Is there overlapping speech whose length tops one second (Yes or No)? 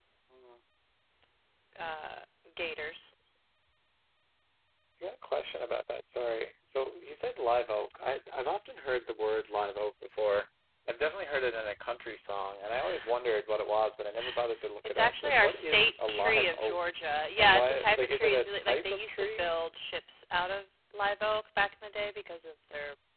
Yes